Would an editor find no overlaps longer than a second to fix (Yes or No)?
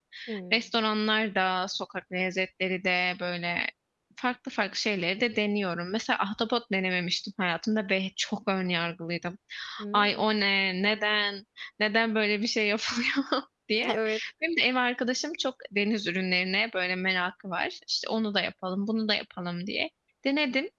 Yes